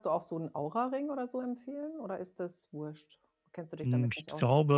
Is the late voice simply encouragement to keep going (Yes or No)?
No